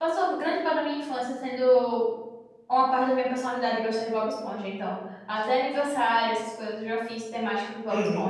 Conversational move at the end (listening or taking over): listening